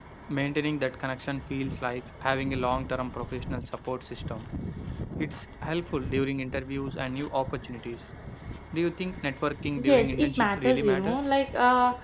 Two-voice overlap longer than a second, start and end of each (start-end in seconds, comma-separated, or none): 9.8-11.2